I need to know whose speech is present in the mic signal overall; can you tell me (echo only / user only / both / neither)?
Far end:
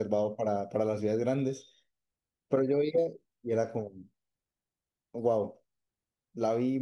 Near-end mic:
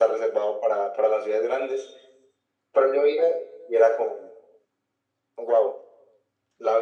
echo only